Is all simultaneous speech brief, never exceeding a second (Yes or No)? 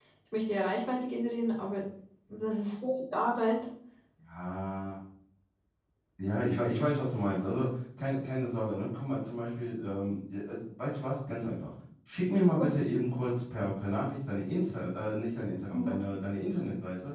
Yes